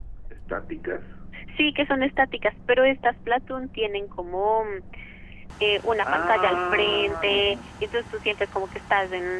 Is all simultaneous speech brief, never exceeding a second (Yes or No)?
No